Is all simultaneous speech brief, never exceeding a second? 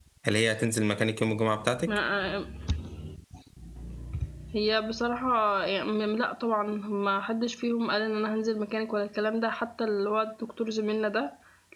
Yes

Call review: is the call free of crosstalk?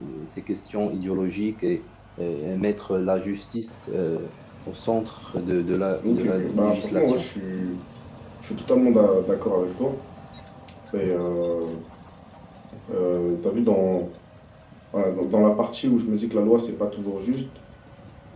No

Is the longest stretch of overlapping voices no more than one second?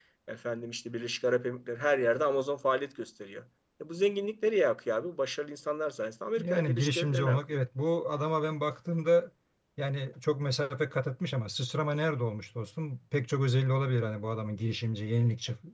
No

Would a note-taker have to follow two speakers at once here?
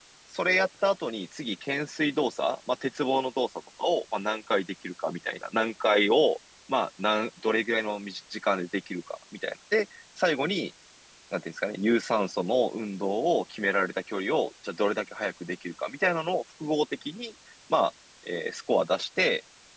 No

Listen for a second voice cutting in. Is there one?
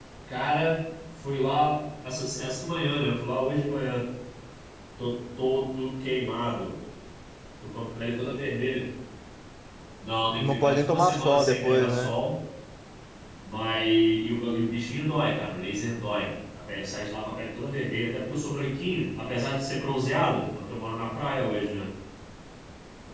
Yes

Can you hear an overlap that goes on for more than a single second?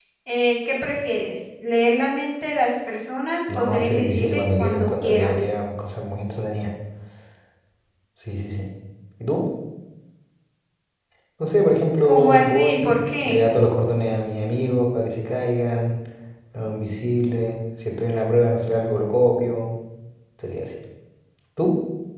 Yes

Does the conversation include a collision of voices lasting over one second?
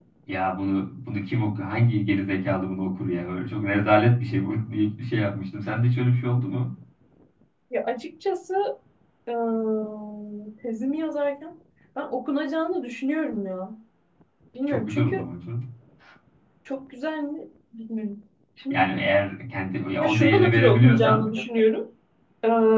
Yes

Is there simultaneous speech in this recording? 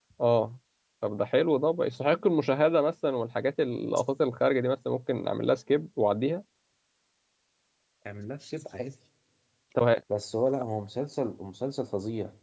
No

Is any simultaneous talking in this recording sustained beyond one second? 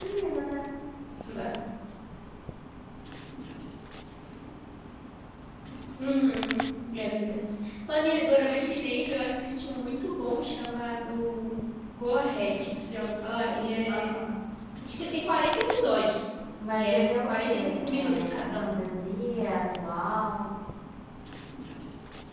Yes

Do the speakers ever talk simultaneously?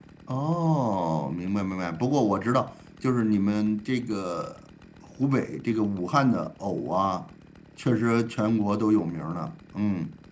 No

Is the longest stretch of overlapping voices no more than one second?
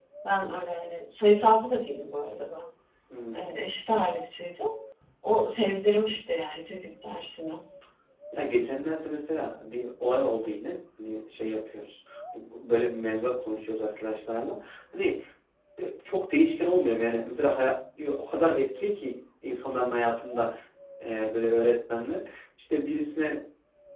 Yes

